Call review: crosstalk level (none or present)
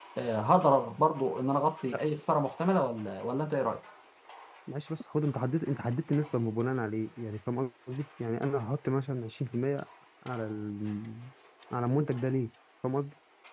none